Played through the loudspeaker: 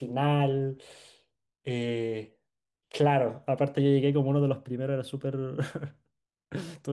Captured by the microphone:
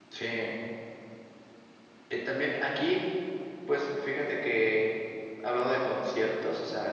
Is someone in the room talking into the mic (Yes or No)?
Yes